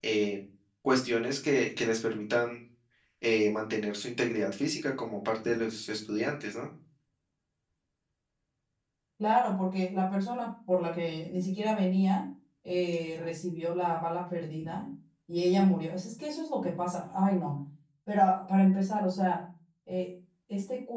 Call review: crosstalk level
none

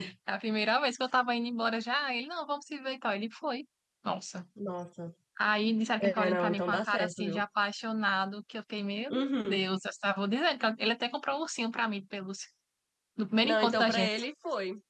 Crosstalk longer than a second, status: present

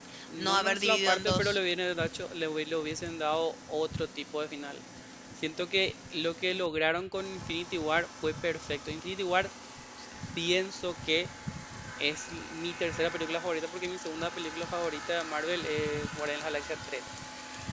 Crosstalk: present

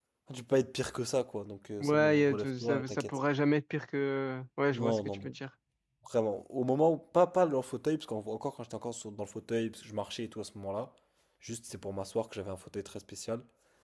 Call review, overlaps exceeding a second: present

